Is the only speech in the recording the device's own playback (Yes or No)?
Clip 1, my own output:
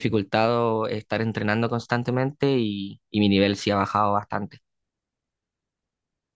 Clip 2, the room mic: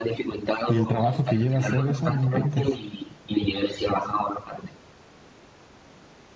No